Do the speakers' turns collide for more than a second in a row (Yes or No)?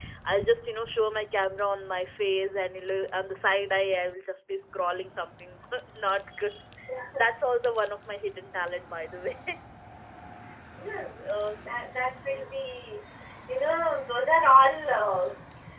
No